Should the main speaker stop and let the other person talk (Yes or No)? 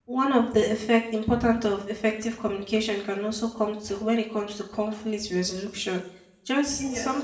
No